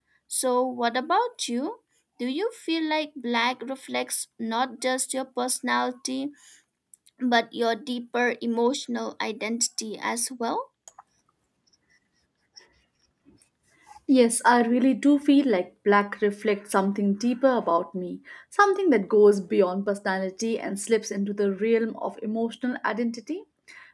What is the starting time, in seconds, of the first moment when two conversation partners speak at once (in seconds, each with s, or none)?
none